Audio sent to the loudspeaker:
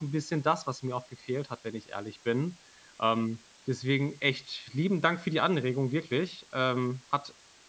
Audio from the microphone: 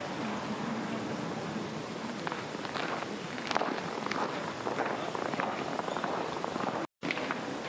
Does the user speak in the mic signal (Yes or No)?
No